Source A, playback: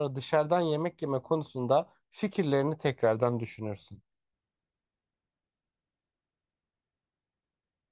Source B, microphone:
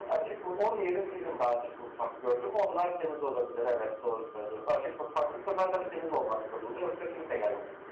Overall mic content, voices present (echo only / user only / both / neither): user only